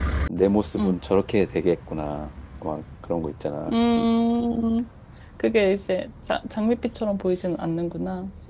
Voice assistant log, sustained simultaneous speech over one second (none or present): none